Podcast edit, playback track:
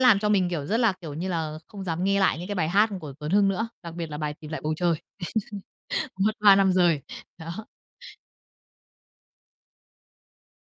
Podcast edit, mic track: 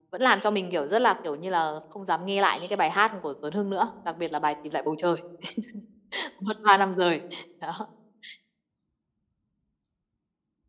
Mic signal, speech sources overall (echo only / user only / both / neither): echo only